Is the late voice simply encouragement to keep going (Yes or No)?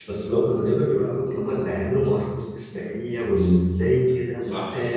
No